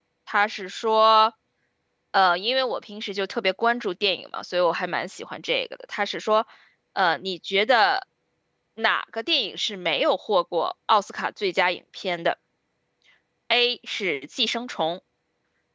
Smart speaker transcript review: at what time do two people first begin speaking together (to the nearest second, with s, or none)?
none